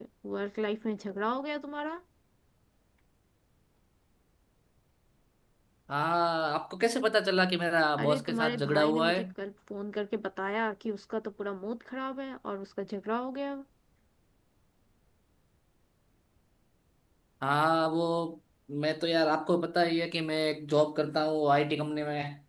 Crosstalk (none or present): present